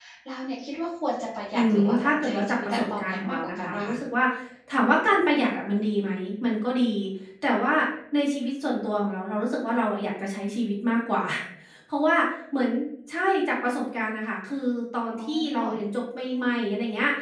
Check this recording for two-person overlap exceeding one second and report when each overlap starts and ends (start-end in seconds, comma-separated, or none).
1.6-3.9